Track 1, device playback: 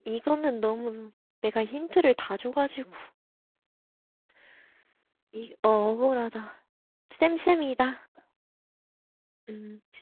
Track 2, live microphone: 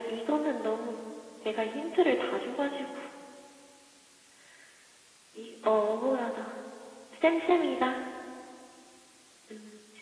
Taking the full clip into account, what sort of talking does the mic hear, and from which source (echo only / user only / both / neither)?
echo only